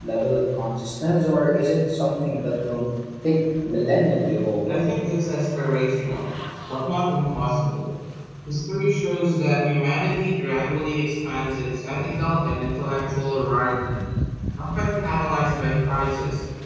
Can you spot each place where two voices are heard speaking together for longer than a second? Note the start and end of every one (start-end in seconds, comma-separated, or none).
none